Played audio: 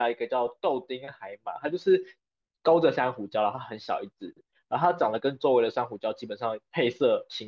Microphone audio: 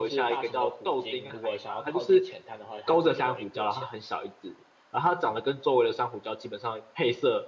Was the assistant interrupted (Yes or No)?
Yes